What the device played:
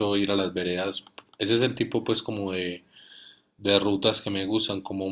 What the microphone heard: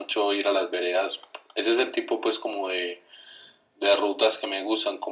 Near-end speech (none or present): none